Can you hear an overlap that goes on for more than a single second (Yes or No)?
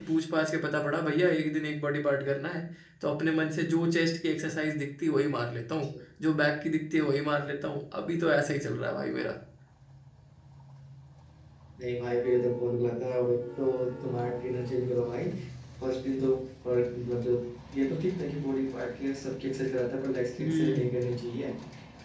No